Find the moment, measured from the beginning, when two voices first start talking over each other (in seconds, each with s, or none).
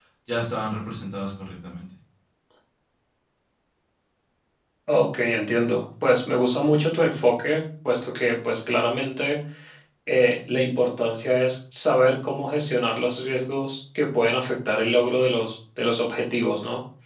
none